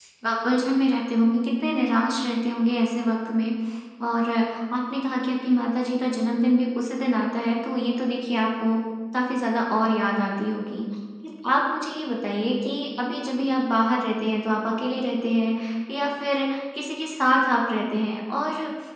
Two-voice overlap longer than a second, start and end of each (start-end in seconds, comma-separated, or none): none